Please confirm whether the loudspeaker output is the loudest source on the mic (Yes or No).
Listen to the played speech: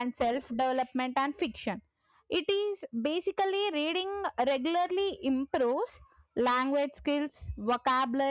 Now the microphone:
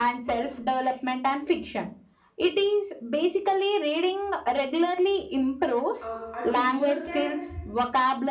Yes